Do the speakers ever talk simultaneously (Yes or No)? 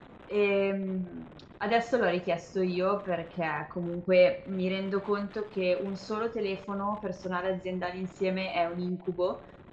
No